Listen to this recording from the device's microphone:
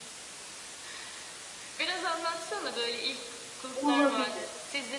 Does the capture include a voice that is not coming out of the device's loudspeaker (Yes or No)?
Yes